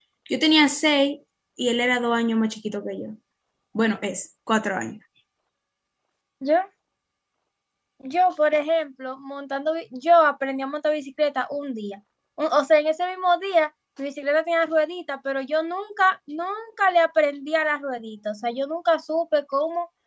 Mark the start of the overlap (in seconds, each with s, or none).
none